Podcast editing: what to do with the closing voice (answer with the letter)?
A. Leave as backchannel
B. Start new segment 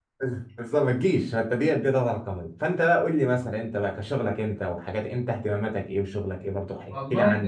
B